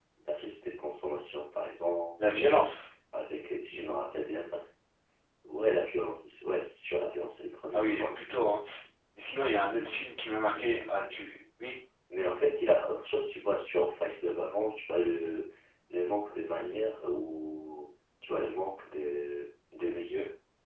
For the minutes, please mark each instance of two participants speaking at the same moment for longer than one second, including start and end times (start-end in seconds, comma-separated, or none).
none